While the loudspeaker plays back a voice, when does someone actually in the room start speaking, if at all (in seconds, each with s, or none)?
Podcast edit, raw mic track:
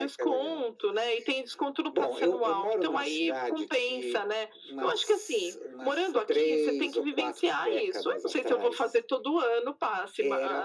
none